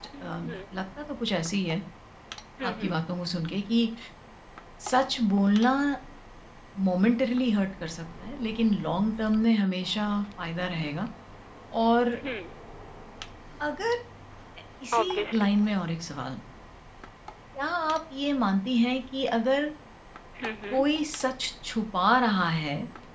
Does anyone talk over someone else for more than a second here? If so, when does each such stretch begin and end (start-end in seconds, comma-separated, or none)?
none